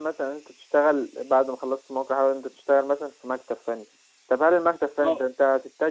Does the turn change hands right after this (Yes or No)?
No